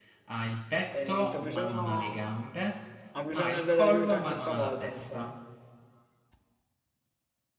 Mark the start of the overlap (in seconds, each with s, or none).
0.9 s